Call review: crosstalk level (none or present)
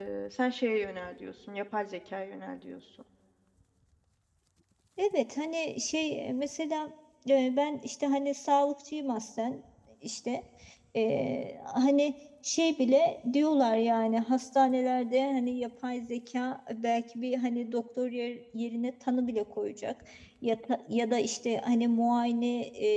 none